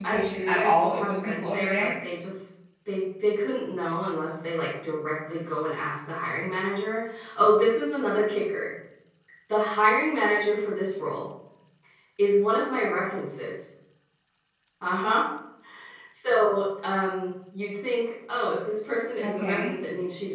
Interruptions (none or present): present